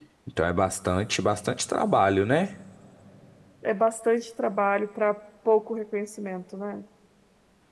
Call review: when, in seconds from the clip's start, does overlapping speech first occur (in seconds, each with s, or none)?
none